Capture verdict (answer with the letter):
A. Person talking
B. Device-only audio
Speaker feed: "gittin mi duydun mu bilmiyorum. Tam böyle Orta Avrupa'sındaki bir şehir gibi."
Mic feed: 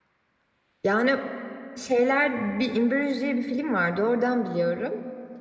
A